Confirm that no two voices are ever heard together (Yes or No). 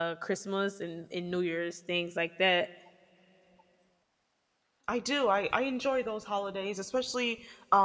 Yes